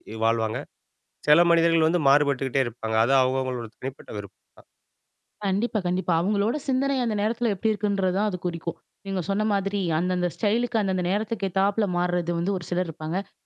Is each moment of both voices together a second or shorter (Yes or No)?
Yes